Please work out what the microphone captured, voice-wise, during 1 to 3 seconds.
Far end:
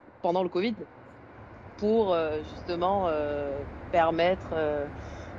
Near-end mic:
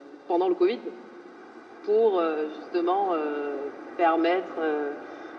echo only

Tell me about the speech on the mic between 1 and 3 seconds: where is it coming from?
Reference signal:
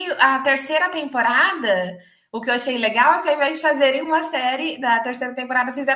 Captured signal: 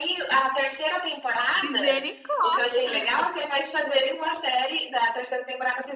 both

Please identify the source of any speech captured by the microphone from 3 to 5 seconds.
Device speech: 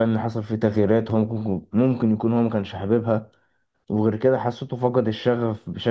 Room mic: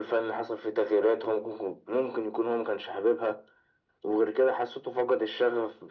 echo only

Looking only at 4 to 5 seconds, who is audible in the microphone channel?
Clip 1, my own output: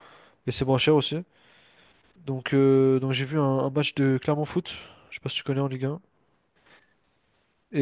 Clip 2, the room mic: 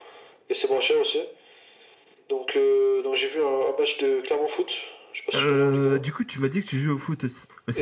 echo only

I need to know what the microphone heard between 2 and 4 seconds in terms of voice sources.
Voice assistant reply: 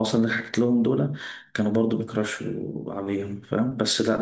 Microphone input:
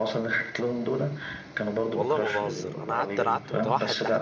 both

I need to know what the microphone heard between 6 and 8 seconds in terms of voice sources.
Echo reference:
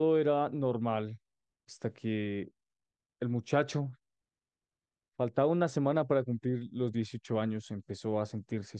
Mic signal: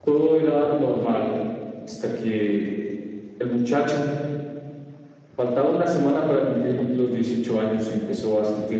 echo only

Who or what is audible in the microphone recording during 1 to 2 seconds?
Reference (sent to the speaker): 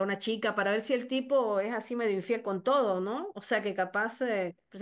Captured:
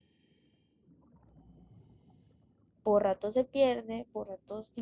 neither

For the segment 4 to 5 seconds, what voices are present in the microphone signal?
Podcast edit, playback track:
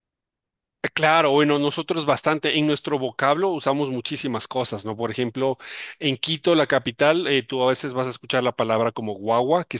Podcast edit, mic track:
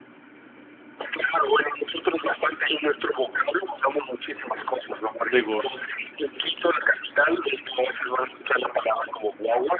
echo only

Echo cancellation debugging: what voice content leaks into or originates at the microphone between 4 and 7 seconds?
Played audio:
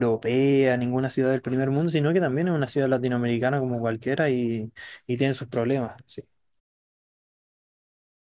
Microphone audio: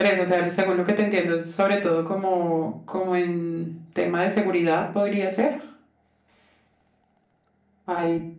user only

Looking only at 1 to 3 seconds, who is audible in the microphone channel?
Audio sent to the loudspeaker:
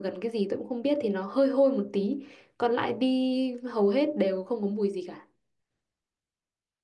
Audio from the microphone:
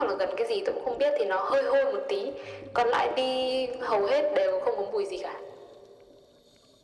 echo only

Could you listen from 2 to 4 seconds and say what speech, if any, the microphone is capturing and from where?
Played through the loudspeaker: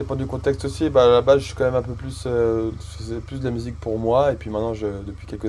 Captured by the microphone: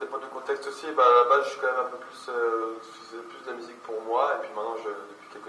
echo only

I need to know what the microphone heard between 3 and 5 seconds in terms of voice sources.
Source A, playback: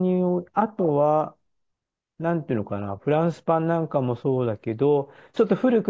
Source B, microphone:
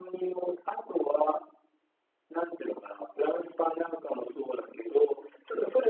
echo only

